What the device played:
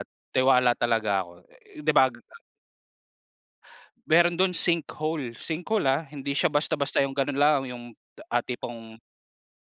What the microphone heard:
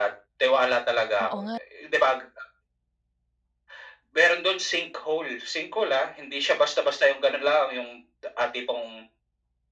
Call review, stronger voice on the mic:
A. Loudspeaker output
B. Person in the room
A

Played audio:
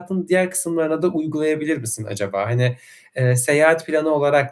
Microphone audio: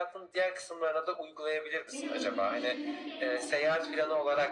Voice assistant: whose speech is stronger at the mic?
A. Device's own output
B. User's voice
A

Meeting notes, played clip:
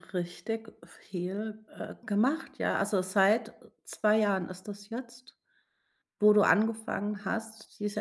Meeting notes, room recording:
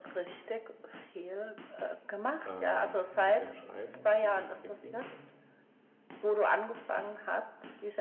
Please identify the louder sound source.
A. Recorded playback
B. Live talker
A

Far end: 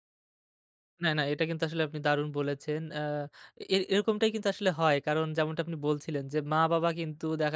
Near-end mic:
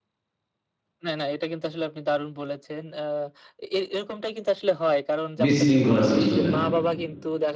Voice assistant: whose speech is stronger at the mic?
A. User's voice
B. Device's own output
A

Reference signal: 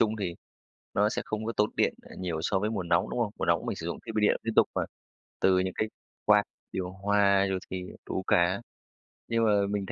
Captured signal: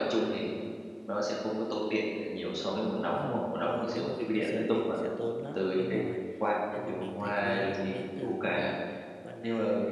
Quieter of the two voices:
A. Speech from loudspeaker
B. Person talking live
B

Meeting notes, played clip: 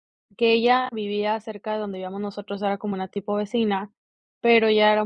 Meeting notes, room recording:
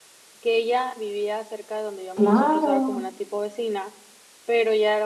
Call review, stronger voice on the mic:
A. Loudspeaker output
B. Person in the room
B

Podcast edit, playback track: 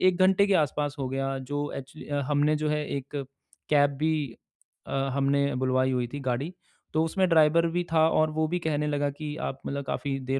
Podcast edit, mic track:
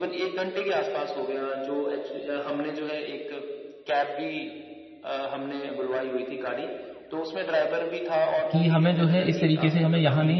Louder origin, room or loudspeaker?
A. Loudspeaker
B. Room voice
B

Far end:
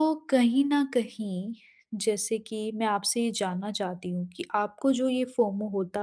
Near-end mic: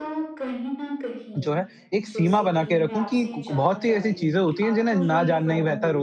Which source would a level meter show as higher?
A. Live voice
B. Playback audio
A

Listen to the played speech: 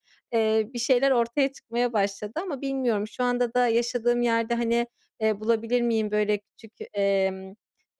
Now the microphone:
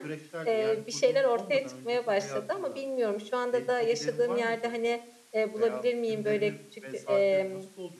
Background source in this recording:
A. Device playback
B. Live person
B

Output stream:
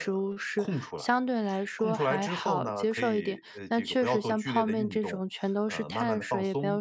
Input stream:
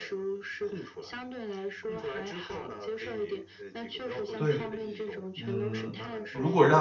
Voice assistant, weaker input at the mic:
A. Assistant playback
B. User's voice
A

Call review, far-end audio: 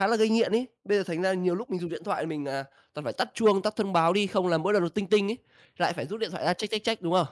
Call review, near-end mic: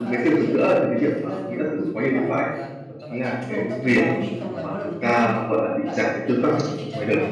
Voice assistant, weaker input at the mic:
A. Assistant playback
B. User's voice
A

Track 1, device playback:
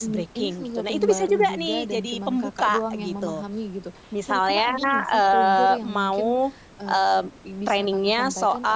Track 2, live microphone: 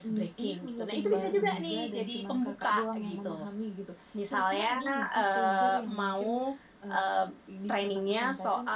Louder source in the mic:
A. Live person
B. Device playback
B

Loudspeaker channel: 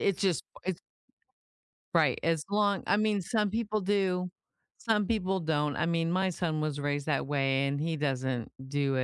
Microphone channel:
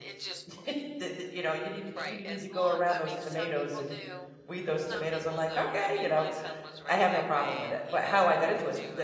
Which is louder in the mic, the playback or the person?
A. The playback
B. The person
B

